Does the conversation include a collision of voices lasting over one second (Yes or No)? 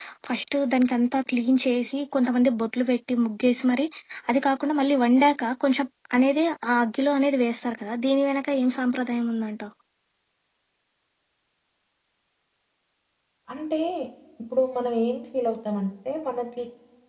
No